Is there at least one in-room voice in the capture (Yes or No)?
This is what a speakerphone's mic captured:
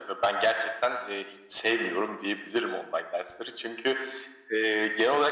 No